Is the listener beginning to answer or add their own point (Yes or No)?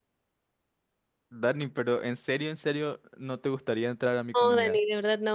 Yes